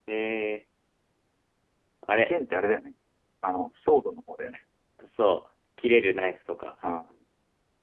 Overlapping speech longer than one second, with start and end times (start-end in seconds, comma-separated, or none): none